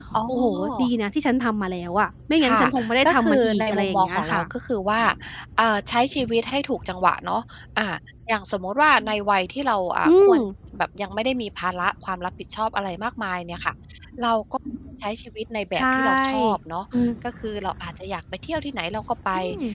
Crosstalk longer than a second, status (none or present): present